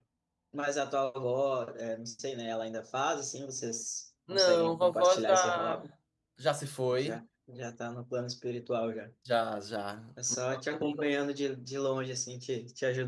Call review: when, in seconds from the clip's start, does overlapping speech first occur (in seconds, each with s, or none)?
4.3 s